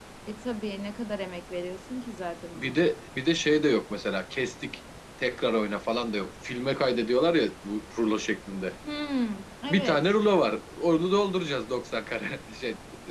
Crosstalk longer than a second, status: none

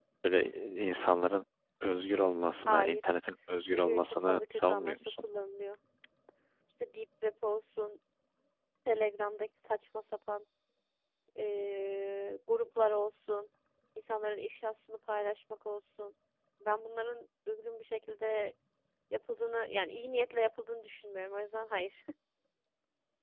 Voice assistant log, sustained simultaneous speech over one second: present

